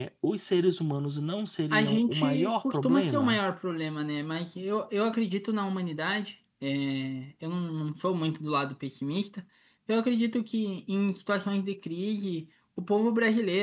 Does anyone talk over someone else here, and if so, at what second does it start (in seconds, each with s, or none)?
1.7 s